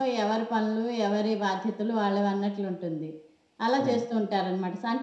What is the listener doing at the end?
listening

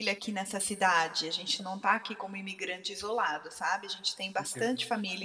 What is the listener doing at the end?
taking over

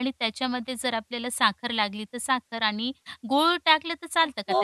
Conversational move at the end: taking over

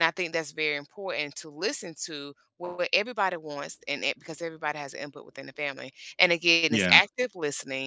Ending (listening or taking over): listening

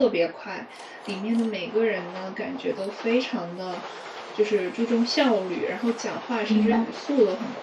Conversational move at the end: listening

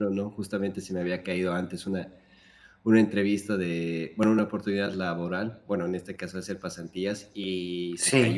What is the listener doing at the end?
listening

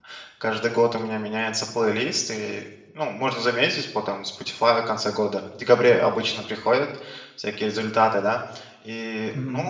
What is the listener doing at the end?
listening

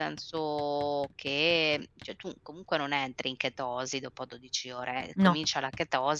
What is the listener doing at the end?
listening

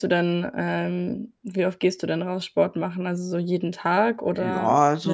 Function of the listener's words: taking over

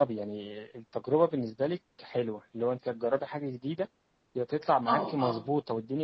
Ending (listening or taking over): listening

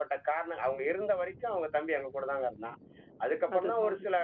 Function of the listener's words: listening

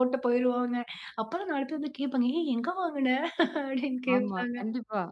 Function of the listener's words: taking over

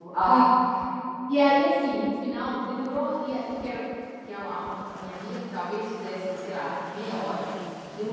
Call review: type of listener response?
listening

